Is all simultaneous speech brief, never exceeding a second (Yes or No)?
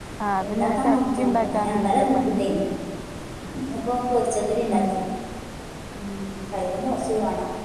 No